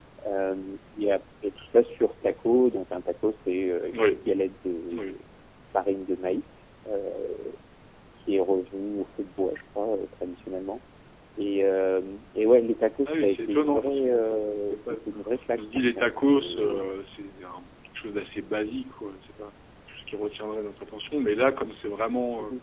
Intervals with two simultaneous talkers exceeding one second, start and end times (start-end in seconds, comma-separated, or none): 13.1-15.0, 15.6-16.9